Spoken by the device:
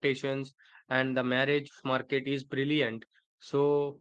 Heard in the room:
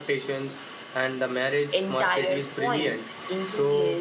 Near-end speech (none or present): present